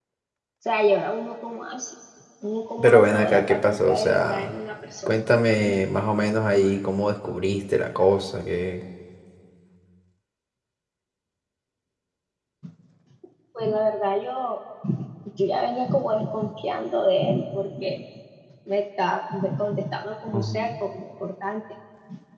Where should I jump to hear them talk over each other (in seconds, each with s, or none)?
2.8 s